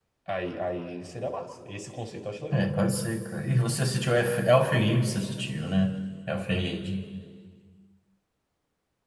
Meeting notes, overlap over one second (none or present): none